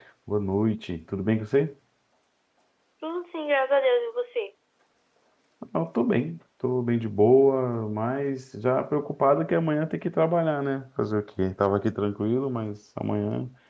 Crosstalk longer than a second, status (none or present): none